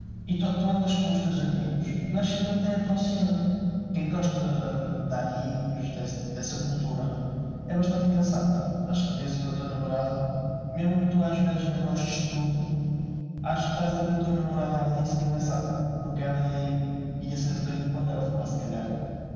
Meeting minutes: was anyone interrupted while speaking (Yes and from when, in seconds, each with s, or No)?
No